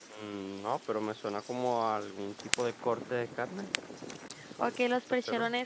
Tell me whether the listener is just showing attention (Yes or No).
No